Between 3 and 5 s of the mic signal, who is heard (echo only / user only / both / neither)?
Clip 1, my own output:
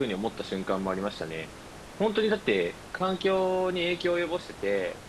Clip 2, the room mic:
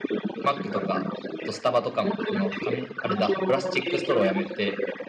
both